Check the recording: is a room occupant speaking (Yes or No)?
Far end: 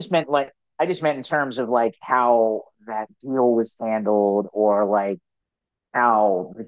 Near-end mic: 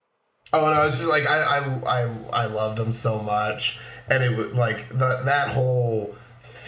Yes